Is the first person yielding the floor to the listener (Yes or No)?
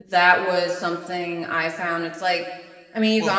No